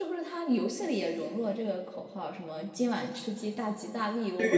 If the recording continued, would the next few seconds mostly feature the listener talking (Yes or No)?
Yes